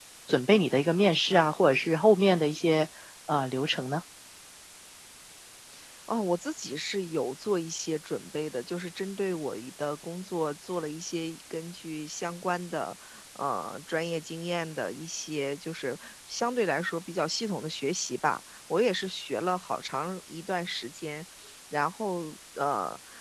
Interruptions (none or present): none